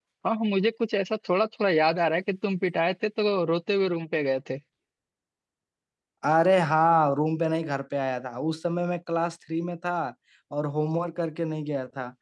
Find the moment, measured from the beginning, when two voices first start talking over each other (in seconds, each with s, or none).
none